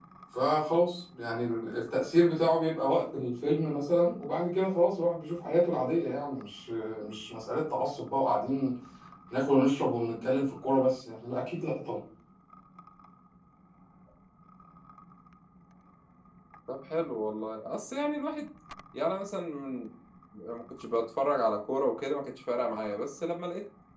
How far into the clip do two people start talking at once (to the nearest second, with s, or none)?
none